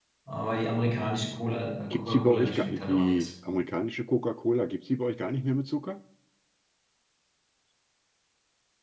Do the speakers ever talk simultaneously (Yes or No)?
Yes